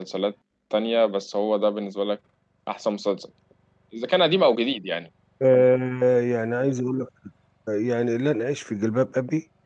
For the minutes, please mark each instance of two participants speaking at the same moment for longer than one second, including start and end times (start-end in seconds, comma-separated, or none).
none